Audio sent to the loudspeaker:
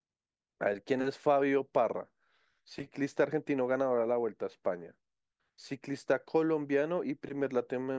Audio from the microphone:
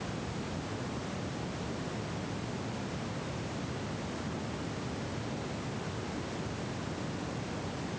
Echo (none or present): none